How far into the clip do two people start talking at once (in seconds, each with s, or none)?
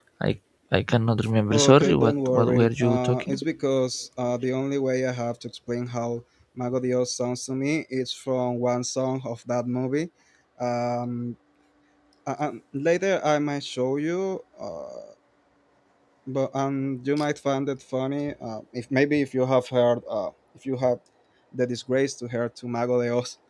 1.5 s